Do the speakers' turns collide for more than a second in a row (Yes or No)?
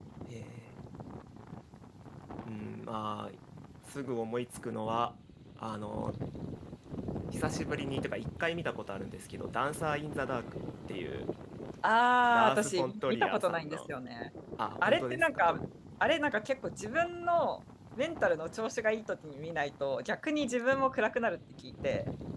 Yes